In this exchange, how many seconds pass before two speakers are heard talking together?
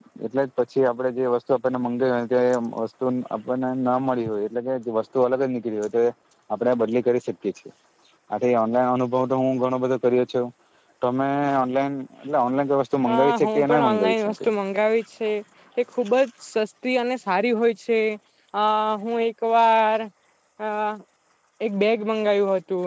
13.1 s

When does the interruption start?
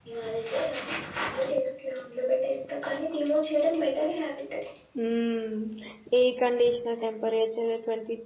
none

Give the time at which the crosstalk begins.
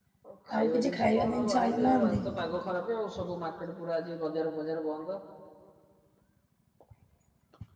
0.6 s

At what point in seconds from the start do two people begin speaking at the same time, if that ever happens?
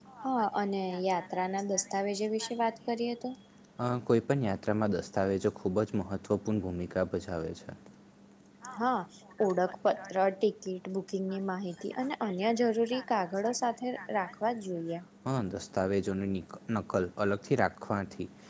none

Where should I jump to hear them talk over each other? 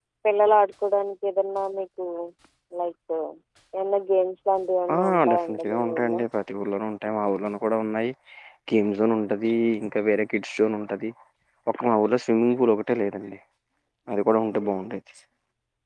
4.9 s

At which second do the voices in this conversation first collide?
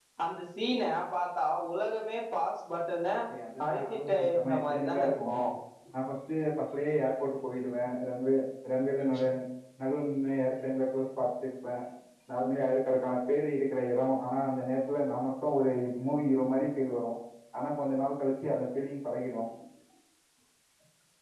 3.6 s

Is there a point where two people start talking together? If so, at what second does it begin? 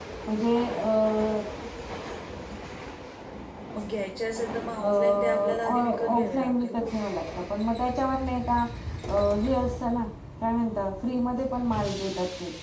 4.8 s

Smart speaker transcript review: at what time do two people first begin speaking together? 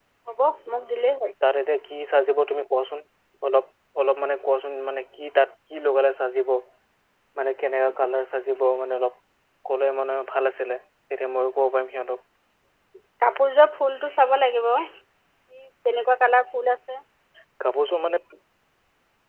none

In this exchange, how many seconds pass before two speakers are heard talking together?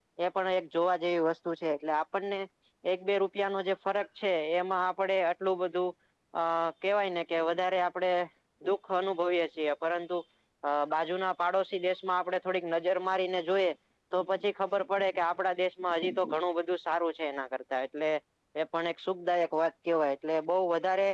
none

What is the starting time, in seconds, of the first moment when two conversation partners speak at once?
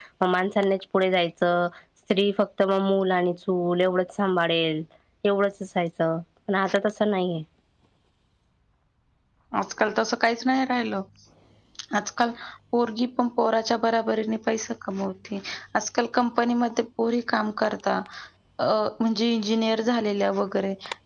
none

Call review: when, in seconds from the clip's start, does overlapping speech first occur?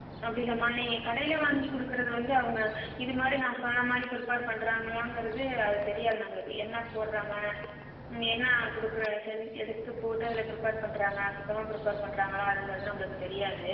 none

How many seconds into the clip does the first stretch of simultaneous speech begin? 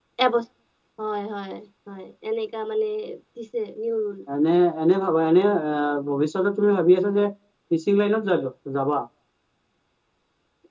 none

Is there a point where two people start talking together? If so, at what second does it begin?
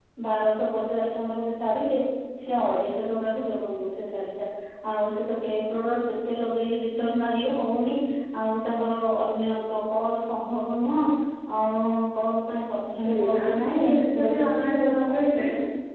13.0 s

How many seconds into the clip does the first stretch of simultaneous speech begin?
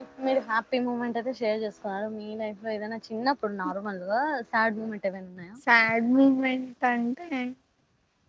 none

